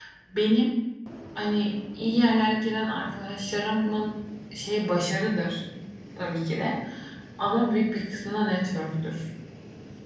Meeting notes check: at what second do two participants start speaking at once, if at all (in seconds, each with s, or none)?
none